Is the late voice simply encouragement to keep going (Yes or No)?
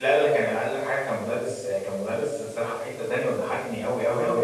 No